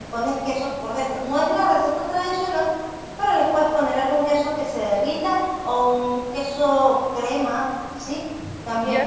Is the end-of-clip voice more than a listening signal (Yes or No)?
Yes